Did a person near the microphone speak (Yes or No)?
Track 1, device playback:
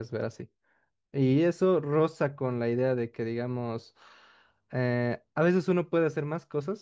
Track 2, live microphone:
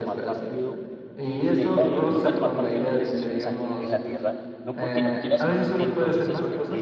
Yes